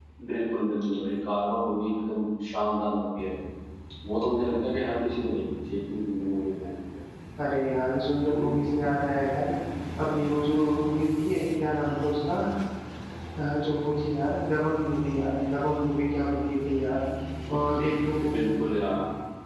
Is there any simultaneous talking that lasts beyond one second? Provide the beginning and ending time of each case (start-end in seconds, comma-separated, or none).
none